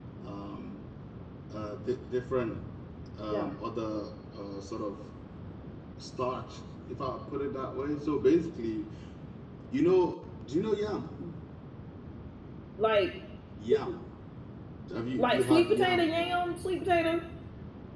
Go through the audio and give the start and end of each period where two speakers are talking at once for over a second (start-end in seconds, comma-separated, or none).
15.2-16.4